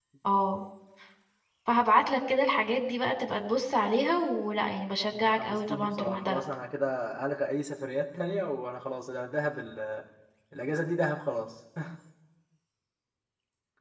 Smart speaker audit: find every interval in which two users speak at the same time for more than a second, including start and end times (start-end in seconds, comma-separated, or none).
5.2-6.4